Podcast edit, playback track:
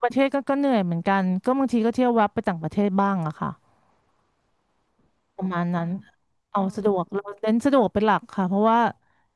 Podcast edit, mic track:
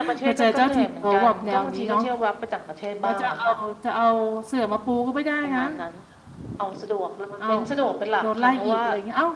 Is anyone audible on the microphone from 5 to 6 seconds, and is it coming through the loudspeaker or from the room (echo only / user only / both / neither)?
both